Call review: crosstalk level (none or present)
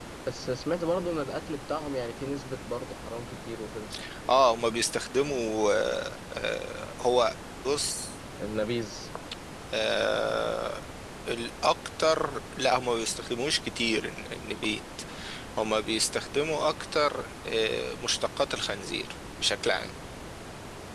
none